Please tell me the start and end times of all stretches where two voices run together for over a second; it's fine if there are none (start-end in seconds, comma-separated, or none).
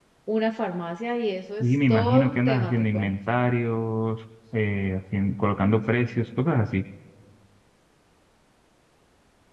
1.6-3.1